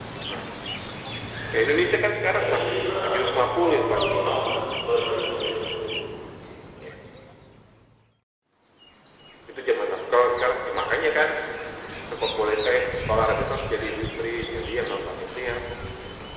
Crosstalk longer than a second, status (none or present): present